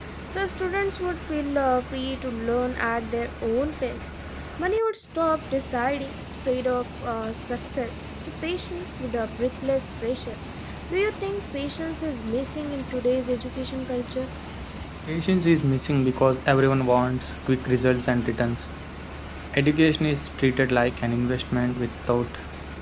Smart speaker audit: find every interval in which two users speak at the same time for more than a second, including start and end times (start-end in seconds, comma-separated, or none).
none